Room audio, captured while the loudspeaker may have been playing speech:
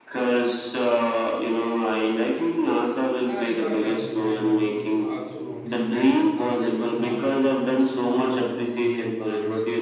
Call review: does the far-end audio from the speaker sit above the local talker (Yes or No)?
Yes